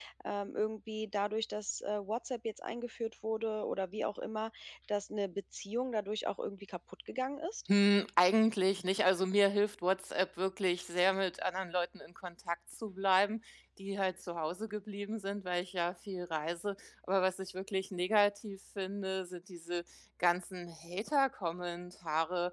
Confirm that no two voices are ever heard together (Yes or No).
Yes